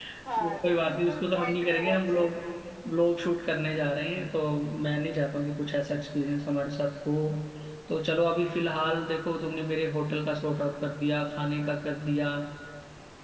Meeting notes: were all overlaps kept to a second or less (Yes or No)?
No